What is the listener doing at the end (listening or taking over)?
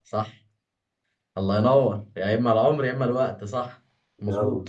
listening